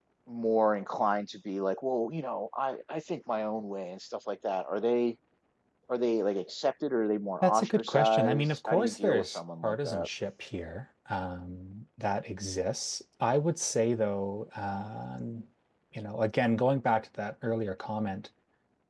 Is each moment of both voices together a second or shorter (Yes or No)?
No